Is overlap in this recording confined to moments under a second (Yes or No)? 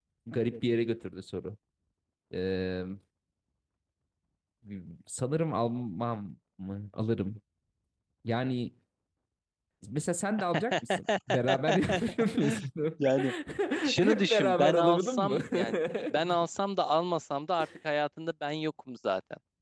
No